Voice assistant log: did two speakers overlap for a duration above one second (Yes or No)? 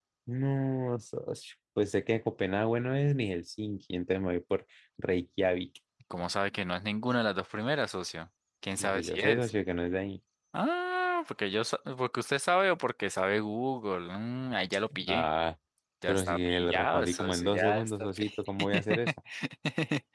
Yes